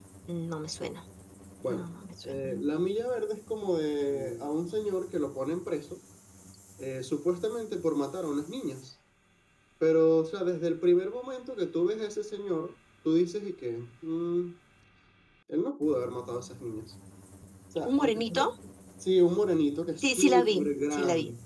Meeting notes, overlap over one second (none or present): present